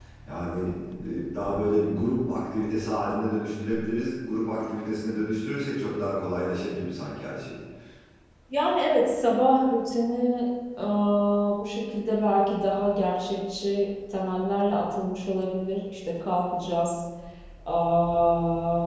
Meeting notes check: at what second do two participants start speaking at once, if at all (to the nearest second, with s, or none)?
none